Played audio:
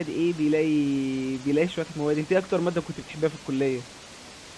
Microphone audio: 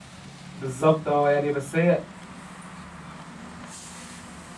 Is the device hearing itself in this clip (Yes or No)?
No